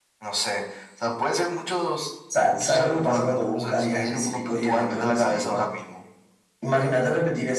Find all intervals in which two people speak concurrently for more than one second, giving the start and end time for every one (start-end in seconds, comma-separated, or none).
2.5-5.6